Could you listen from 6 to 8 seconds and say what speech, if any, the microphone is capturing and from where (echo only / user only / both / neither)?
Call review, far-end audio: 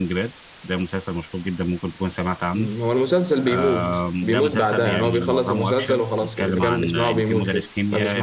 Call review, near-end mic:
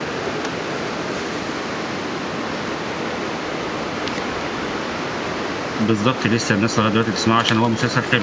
user only